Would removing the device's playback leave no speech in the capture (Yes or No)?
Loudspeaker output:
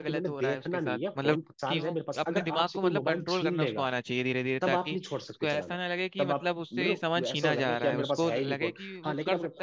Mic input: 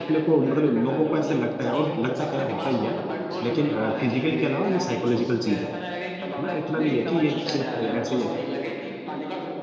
No